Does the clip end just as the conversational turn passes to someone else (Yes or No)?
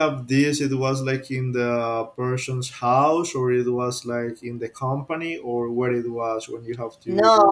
Yes